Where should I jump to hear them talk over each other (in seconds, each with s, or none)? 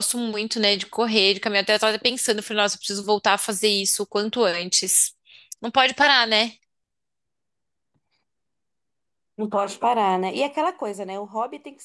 none